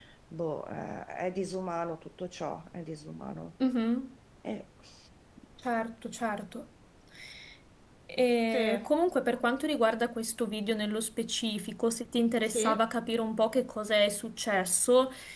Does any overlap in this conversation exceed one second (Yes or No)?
No